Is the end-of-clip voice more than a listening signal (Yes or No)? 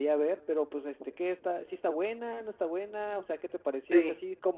No